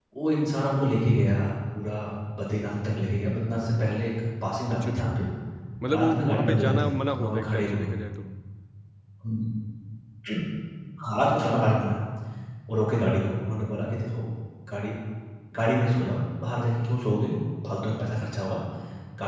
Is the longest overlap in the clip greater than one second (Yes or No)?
Yes